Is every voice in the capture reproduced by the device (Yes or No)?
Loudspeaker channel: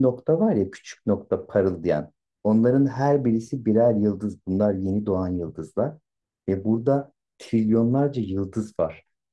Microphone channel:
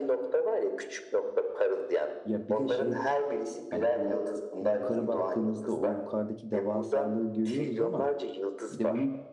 No